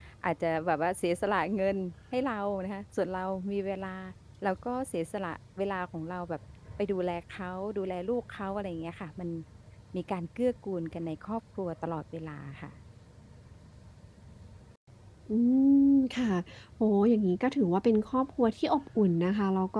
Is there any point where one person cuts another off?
No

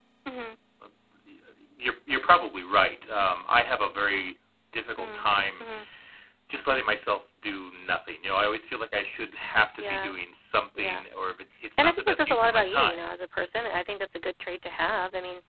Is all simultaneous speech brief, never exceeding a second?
No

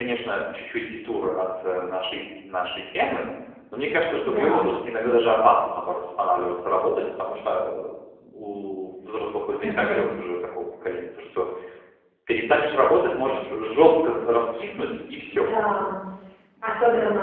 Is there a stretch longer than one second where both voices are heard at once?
No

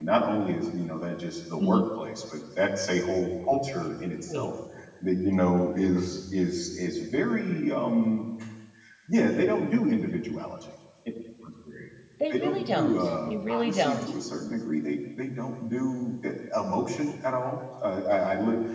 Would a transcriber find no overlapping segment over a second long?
No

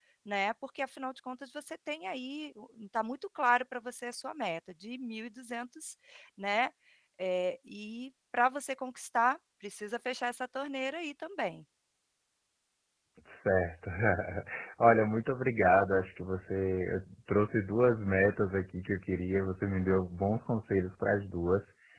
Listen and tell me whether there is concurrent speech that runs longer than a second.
No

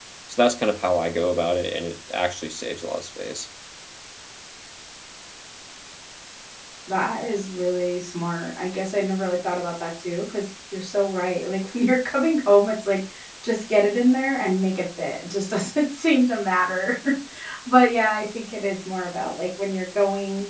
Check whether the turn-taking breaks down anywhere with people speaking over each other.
No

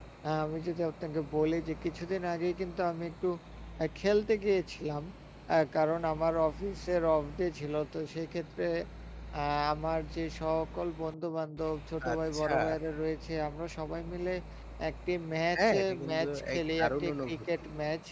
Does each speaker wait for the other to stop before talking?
No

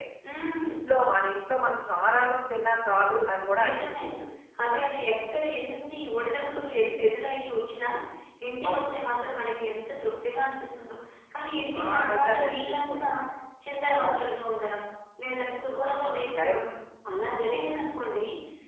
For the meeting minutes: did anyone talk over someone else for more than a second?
Yes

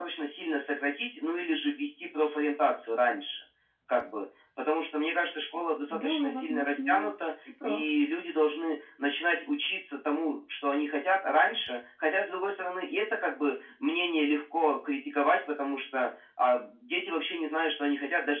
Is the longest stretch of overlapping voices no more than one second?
No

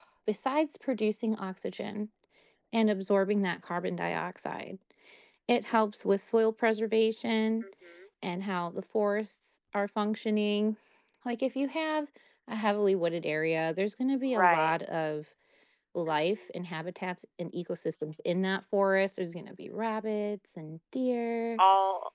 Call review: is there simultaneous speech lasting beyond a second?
No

